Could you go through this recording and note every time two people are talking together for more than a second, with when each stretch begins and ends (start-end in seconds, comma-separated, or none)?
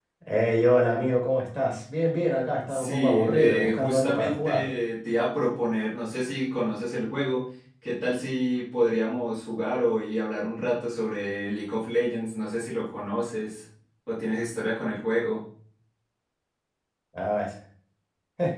2.7-4.6